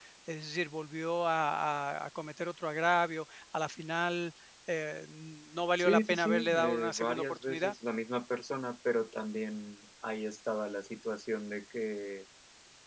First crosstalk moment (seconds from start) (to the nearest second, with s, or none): 6 s